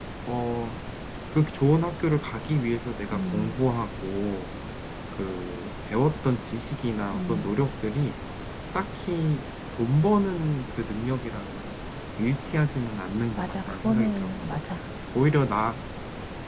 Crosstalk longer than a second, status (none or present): present